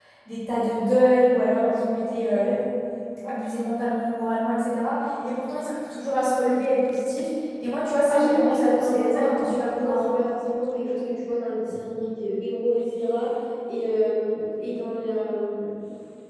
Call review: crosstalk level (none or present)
present